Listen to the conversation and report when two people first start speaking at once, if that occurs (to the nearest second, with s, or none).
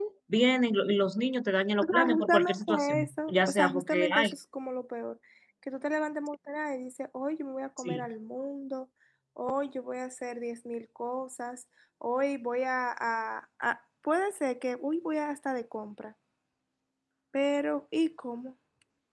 2 s